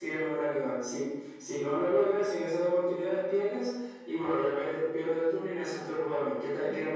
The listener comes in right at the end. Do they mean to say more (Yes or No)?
Yes